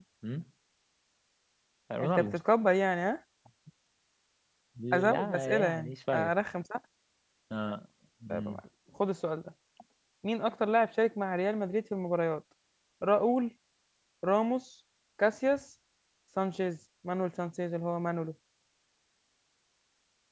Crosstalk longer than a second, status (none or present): present